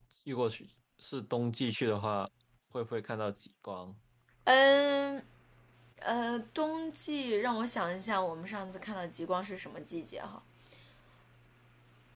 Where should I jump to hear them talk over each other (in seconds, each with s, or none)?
none